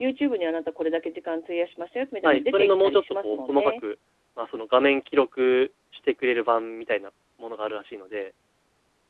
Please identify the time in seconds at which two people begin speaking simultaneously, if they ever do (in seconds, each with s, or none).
2.2 s